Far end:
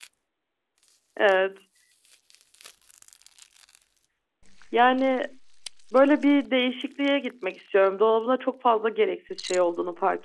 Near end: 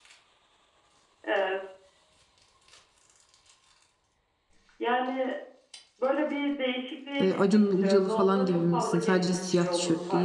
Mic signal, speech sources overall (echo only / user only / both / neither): both